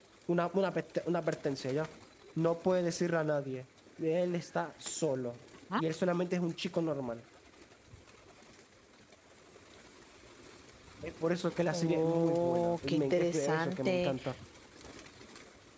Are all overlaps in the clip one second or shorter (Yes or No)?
No